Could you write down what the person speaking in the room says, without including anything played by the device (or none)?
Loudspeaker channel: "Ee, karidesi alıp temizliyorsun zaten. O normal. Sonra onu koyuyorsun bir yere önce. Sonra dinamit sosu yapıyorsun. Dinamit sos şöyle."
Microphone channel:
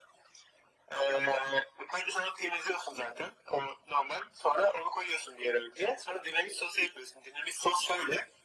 none